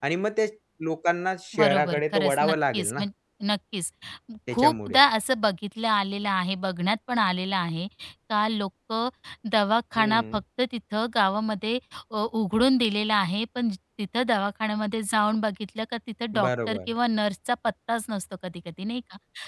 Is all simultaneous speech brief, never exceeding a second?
No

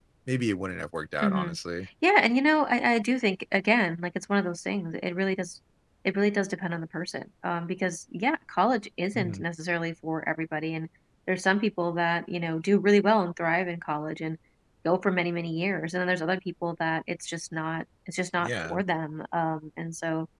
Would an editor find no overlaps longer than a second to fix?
Yes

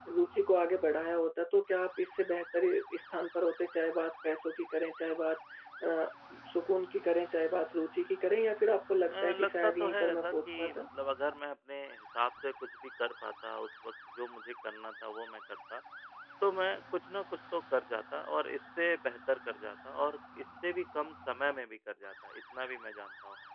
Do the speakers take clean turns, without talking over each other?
No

